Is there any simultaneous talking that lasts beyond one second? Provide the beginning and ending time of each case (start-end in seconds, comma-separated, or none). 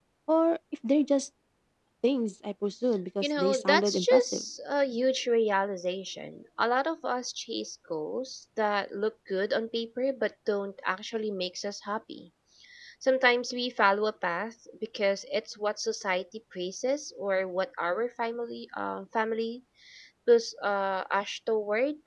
3.2-4.4